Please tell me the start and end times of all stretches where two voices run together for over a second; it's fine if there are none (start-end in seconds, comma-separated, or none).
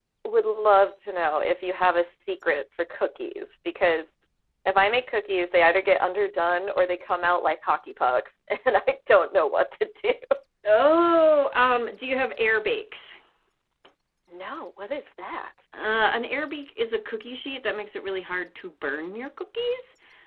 none